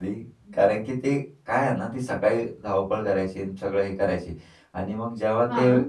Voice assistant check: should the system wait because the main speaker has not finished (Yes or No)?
Yes